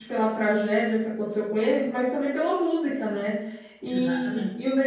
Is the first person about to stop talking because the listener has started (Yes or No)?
No